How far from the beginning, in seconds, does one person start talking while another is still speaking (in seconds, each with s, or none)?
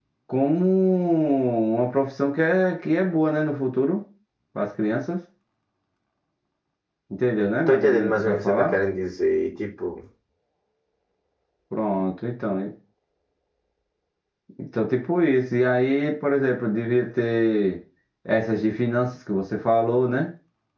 7.4 s